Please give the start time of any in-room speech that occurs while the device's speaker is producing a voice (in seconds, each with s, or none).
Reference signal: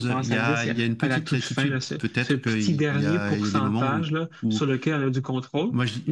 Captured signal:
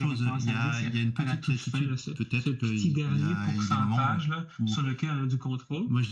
none